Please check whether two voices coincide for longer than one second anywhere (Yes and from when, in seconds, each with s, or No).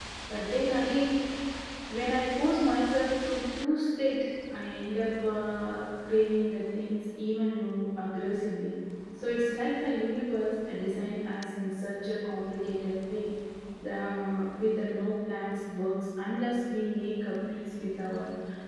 No